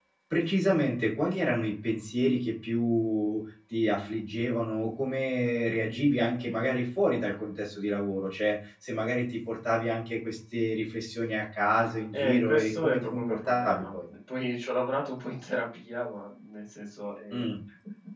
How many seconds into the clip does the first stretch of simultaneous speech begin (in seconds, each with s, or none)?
12.1 s